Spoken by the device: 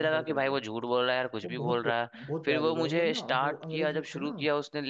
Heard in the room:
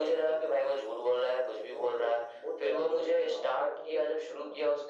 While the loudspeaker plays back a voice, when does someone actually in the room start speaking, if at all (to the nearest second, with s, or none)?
none